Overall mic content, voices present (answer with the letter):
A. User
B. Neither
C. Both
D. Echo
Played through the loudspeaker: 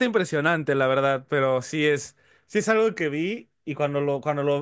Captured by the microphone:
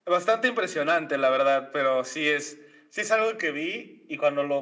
D